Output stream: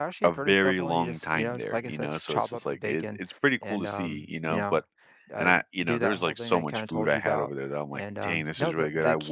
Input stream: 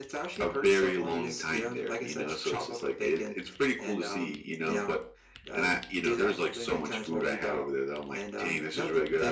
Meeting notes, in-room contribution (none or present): none